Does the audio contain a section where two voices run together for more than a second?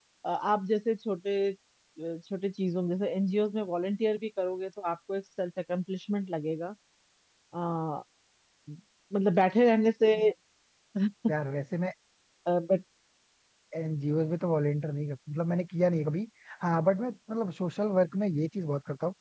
No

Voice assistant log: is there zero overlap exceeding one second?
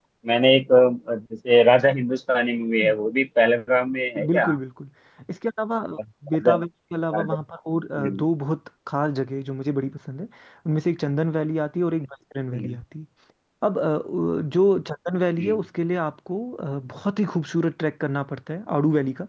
Yes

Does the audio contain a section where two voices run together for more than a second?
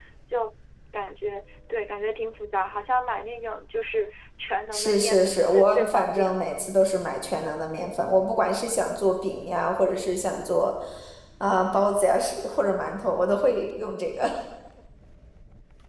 Yes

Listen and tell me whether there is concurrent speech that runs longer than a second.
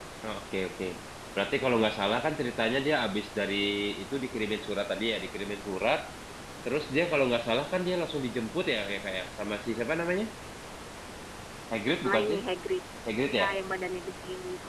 No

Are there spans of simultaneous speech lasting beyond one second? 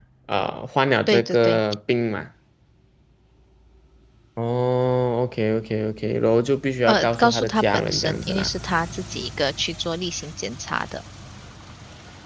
Yes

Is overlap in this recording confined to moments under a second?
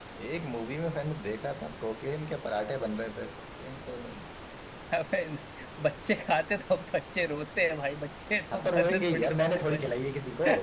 No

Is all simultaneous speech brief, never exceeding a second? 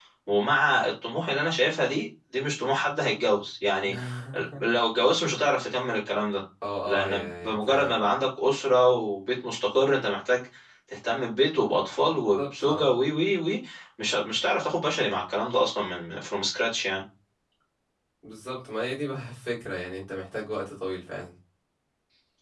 No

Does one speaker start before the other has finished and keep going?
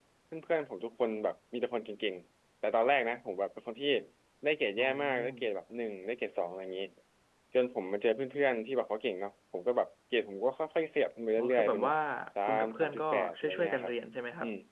Yes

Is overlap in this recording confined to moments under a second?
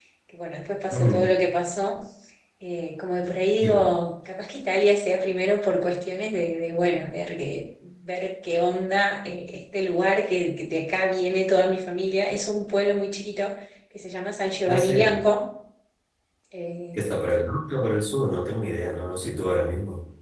Yes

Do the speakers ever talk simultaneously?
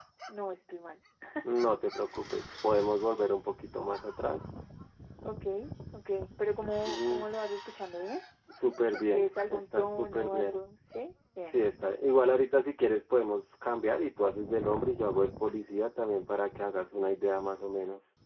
Yes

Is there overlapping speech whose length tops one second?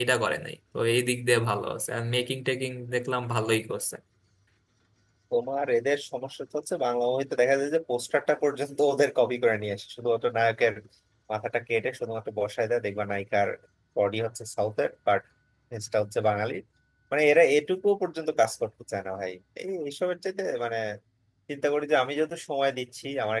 No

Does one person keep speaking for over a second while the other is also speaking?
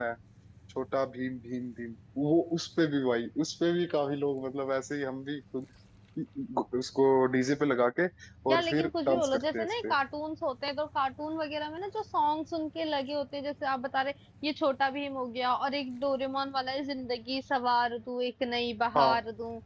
Yes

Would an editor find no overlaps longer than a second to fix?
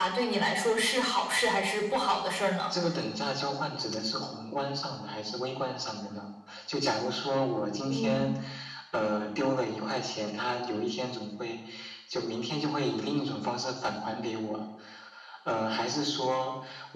Yes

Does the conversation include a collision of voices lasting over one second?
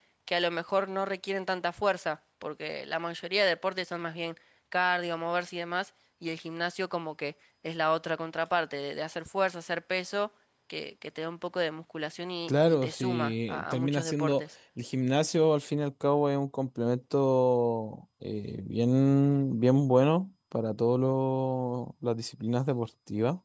Yes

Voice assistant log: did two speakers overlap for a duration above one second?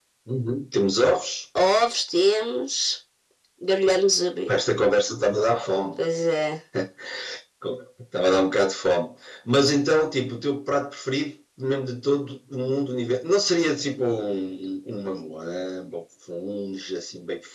No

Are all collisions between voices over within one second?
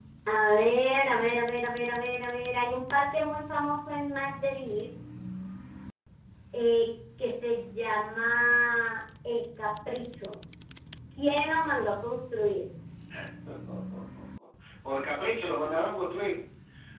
Yes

